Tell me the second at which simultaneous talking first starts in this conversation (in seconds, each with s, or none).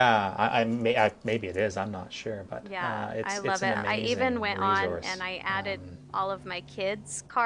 2.6 s